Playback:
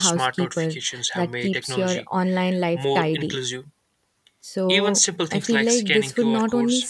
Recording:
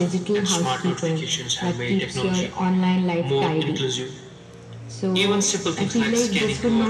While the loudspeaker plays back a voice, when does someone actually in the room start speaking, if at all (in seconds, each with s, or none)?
none